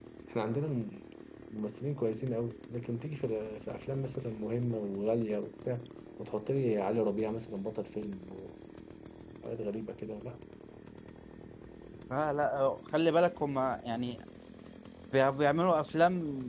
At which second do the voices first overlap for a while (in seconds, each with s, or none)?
none